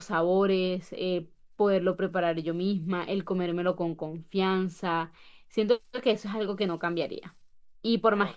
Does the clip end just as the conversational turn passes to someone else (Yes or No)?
No